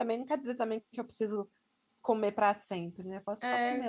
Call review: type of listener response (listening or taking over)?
taking over